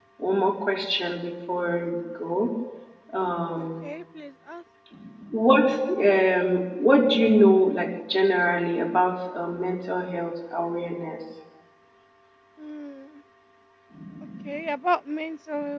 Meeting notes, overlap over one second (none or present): none